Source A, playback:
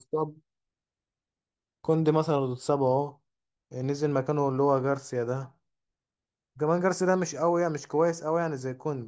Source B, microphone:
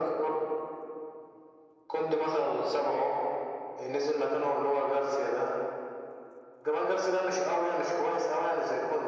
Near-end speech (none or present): none